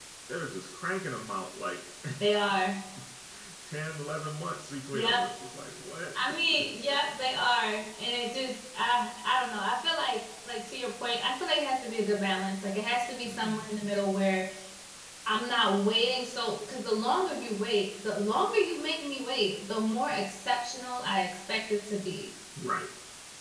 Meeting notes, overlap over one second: none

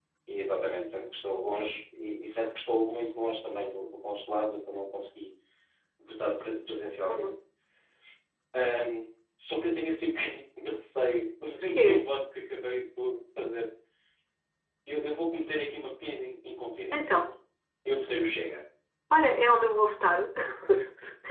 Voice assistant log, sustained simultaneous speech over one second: none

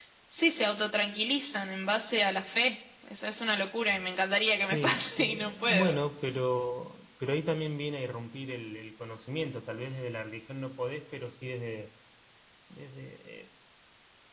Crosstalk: present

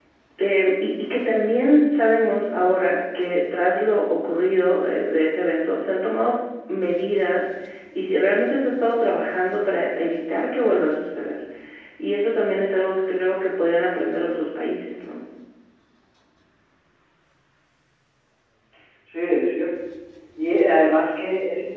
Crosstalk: none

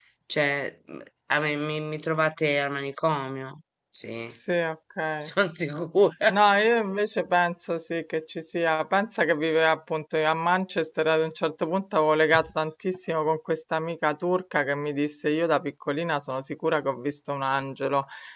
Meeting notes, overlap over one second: none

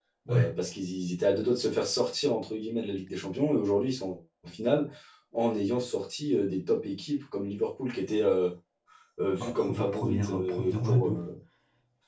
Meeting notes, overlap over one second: present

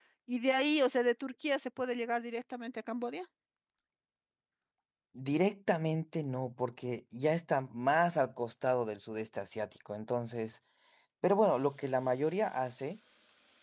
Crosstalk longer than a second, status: none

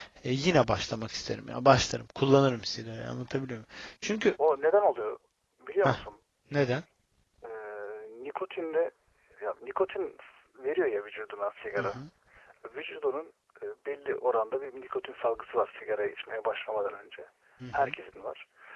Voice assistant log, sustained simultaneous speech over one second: none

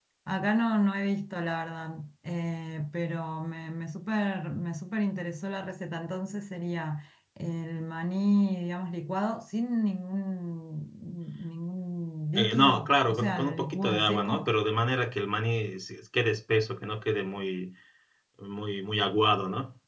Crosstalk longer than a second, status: present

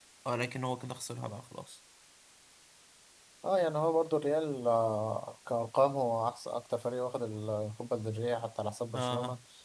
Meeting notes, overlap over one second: none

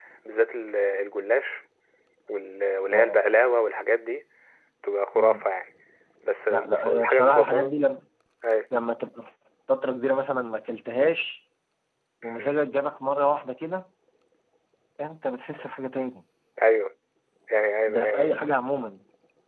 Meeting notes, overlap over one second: present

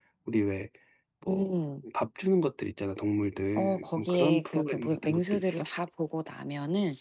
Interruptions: present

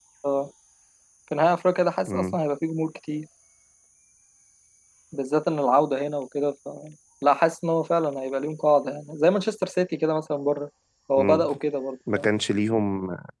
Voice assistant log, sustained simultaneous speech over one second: none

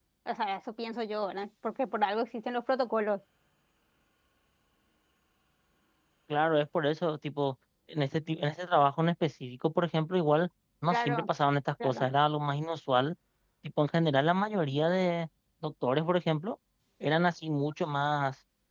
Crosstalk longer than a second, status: none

